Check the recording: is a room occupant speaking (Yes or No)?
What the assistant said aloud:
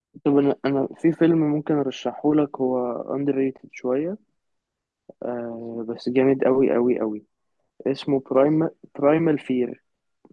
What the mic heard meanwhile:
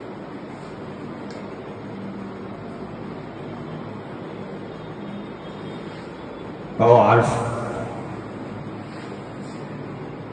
Yes